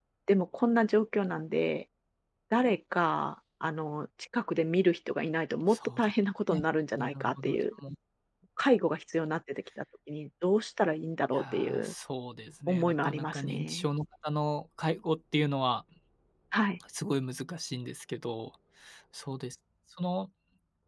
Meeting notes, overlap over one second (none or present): present